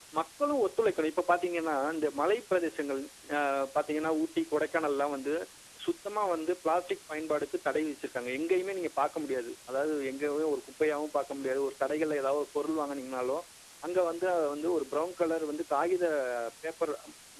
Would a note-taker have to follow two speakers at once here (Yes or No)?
No